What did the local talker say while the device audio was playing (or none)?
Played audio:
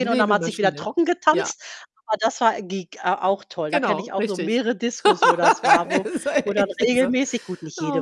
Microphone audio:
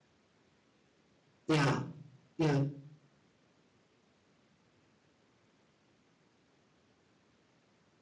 Ja, ja.